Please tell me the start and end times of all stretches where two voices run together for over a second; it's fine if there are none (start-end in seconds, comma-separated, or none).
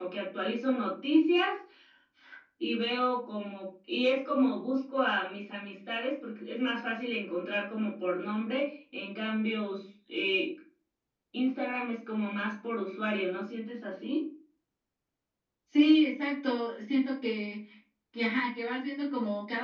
none